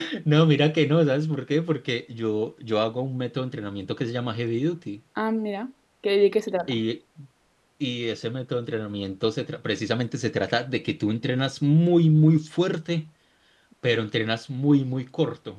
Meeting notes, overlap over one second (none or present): none